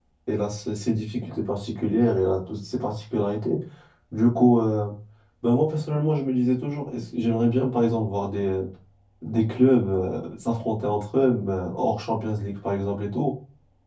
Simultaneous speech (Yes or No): No